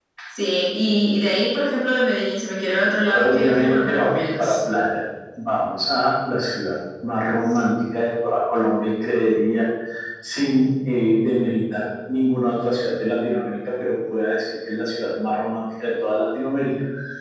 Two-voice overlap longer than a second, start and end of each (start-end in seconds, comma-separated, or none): 3.1-4.5